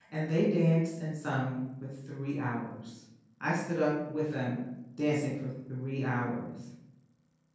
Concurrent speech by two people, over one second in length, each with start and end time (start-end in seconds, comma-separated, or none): none